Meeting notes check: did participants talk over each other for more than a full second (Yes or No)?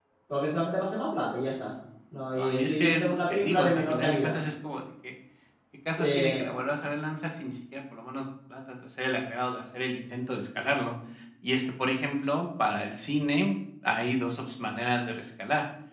Yes